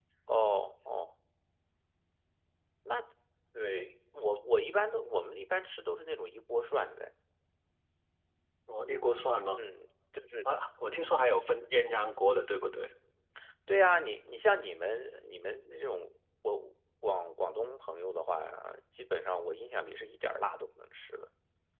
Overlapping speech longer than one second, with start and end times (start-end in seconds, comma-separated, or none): none